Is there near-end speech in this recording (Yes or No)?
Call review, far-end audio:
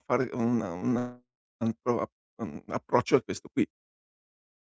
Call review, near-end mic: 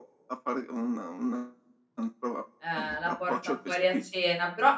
Yes